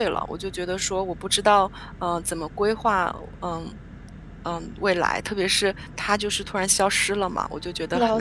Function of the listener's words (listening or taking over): taking over